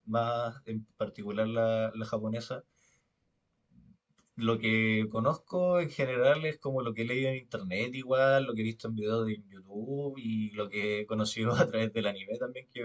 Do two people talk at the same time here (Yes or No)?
No